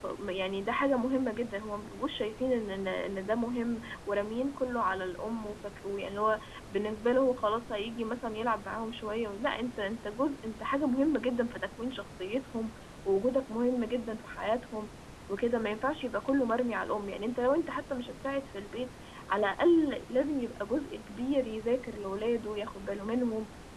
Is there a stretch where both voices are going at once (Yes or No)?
No